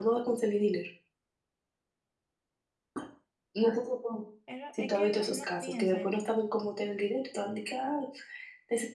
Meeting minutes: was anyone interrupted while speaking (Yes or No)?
Yes